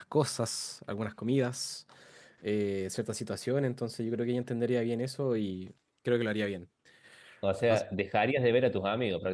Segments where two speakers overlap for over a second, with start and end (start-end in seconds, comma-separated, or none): none